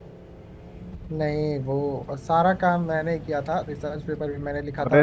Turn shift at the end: Yes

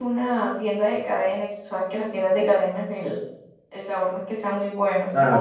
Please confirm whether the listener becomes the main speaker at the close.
Yes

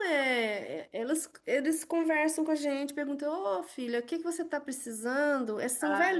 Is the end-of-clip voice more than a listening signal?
No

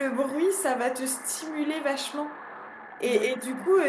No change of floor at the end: Yes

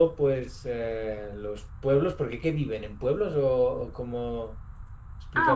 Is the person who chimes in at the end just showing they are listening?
No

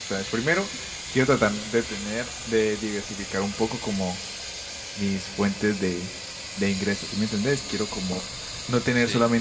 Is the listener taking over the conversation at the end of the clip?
No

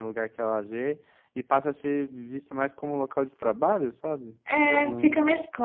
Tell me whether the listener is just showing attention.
No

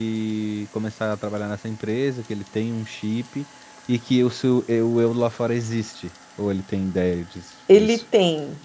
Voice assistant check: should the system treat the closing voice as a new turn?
Yes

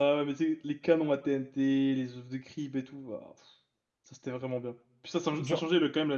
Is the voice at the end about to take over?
No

